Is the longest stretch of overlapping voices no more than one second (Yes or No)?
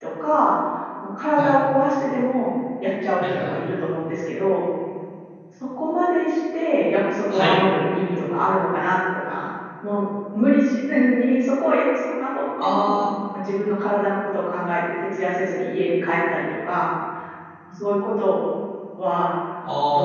Yes